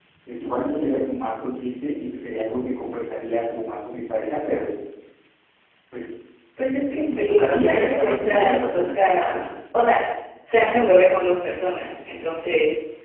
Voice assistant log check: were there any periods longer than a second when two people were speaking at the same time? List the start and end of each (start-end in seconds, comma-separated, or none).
6.9-8.9